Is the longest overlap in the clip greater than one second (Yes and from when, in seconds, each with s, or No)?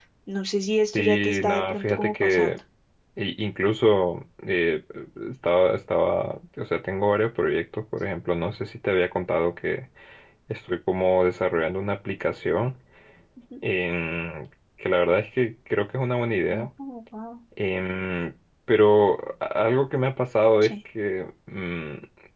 Yes, from 0.9 s